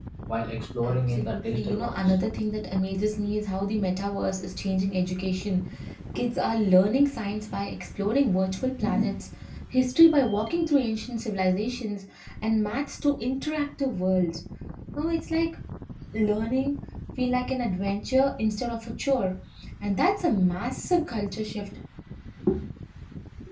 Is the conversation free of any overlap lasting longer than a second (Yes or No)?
No